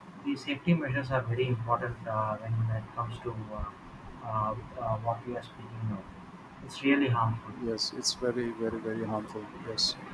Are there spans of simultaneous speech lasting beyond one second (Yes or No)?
No